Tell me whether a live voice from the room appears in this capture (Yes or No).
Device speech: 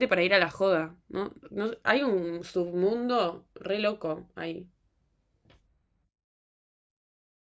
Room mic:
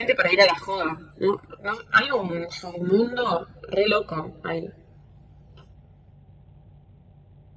No